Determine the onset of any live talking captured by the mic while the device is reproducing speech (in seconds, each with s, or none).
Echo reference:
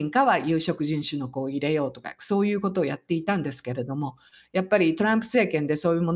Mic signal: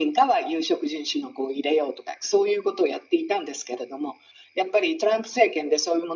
none